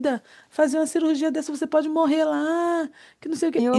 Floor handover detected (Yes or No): No